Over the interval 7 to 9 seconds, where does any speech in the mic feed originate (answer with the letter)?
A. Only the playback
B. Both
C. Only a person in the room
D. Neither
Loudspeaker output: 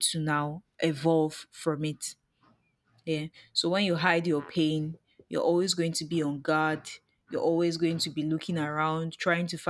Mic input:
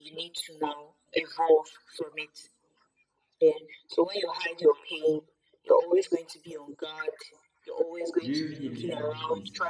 B